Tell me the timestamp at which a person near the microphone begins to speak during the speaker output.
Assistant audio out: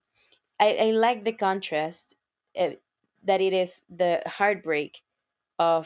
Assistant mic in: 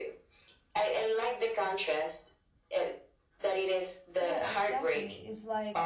4.1 s

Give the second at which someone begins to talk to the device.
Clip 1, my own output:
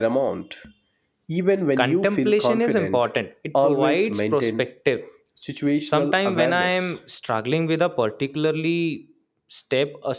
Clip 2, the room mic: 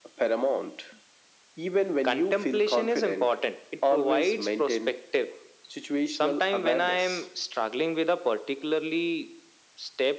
none

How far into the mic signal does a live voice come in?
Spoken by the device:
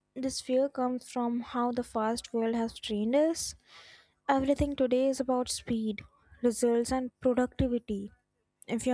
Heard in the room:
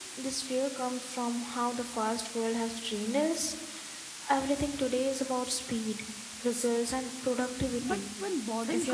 7.8 s

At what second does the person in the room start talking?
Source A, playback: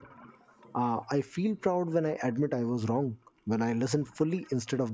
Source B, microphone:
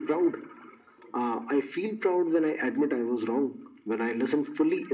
none

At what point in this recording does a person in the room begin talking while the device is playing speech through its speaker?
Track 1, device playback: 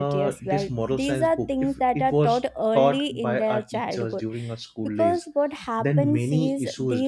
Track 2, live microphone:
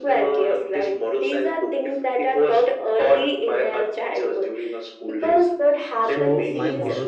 6.0 s

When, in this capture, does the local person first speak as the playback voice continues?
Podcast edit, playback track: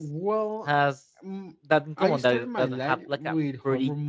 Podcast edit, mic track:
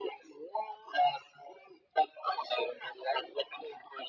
none

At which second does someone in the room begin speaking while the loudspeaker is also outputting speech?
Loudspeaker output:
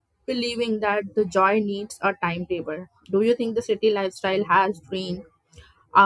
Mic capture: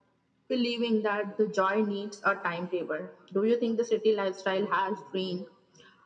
none

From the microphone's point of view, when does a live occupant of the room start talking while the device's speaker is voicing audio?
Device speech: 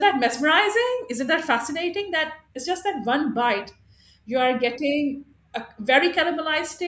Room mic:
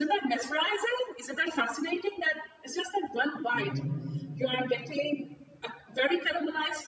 3.5 s

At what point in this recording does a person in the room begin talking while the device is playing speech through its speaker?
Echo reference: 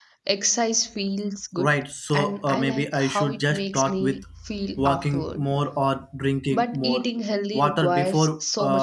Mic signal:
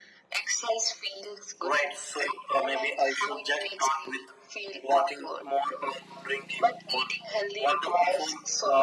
none

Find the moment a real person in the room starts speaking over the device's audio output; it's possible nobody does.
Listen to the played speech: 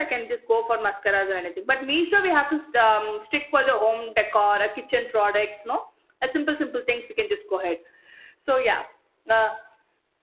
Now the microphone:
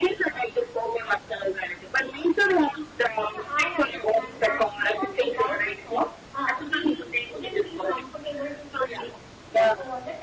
3.3 s

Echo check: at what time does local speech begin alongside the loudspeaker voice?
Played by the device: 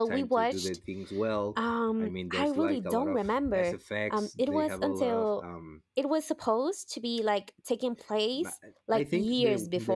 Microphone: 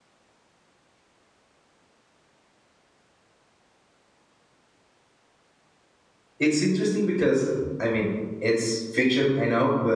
6.4 s

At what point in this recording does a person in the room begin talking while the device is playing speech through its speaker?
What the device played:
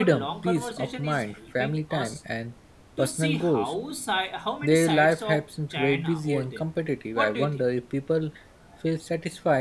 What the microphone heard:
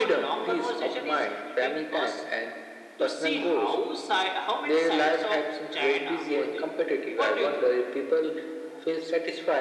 none

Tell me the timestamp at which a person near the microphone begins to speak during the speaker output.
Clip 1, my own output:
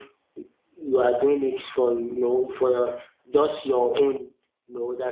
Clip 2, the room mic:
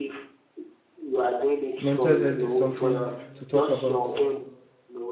1.8 s

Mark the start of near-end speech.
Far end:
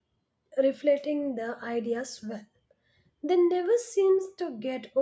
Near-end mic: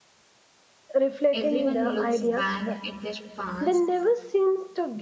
1.3 s

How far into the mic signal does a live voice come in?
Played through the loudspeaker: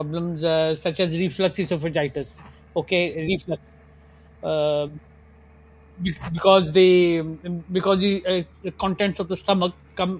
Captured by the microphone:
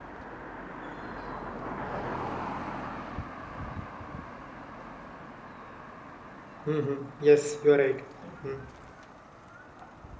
6.7 s

